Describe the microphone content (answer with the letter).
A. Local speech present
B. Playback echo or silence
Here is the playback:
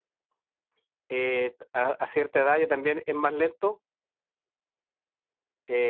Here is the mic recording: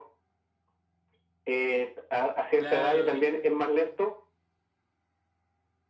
A